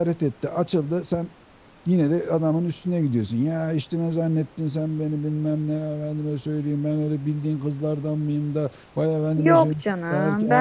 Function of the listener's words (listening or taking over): taking over